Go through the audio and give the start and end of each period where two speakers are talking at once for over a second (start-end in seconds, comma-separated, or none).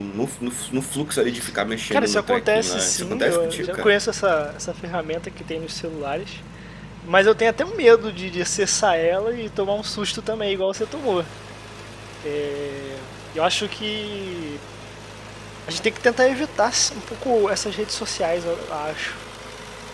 1.9-3.9